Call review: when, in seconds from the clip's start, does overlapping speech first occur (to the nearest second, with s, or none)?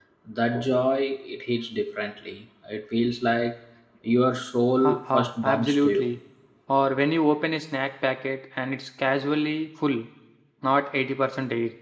5 s